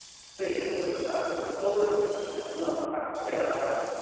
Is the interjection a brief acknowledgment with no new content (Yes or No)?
Yes